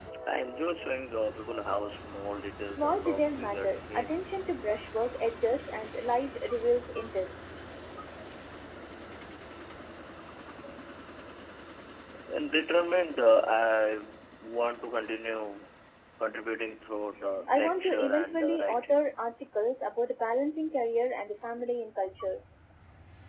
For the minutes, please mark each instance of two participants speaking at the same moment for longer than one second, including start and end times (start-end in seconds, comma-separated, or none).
2.6-4.2, 17.5-19.0